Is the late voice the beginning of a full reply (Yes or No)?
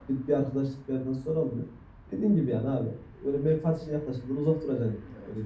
Yes